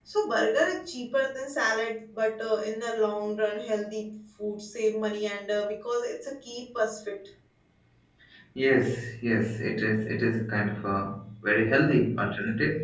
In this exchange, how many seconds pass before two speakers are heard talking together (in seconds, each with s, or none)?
none